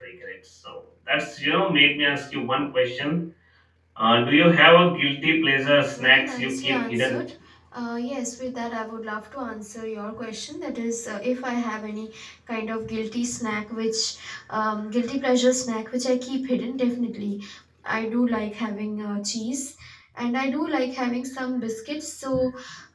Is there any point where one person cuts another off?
Yes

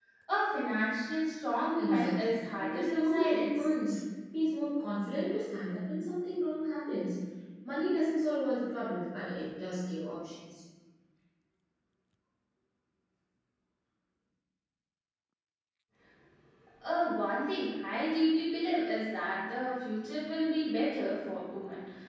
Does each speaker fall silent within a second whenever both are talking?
No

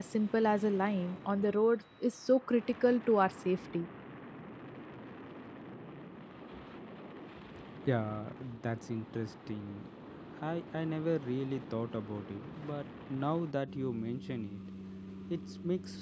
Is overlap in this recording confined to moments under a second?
Yes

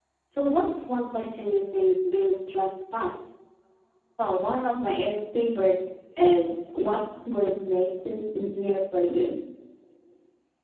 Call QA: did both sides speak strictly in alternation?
Yes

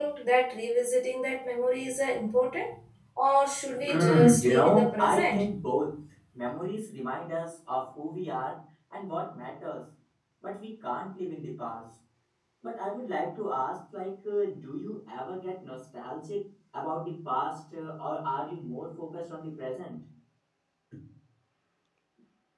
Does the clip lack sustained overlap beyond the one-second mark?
No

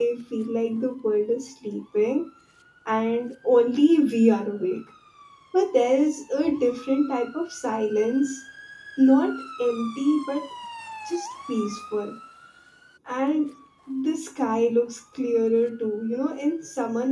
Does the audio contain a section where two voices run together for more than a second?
No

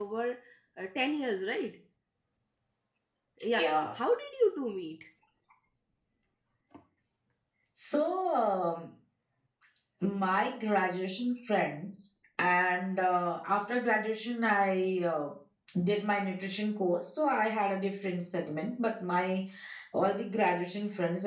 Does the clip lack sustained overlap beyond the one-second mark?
Yes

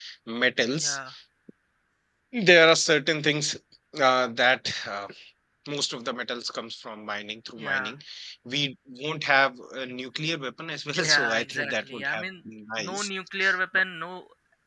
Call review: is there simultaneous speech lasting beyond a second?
Yes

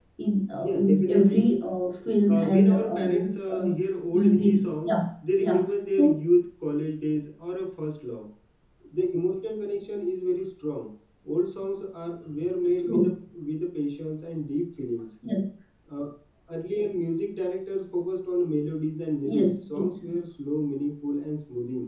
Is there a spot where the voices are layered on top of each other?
Yes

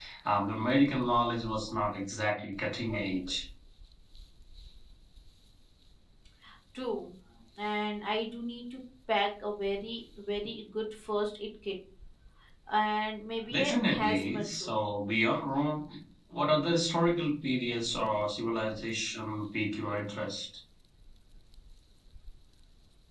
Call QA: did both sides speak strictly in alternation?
No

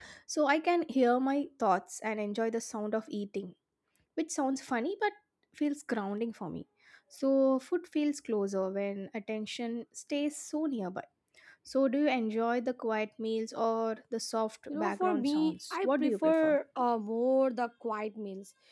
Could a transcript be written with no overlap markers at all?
No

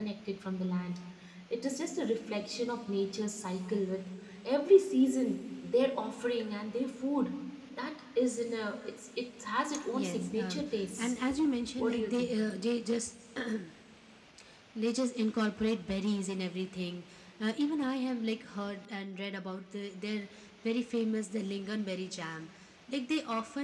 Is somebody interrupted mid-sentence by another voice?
Yes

